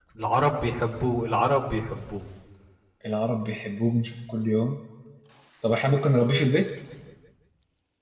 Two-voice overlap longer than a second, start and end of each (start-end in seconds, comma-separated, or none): none